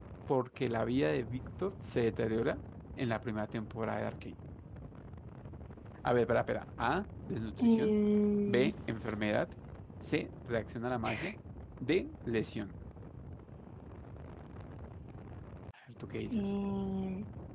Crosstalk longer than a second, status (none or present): none